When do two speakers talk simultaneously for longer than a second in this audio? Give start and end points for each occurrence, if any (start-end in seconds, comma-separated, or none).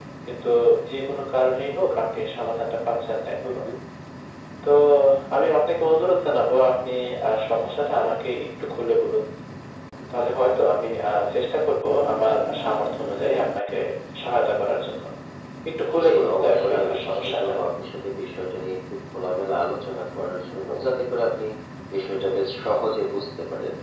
16.0-17.5